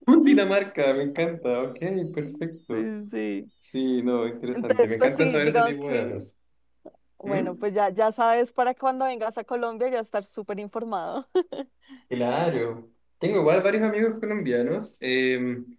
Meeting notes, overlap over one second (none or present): present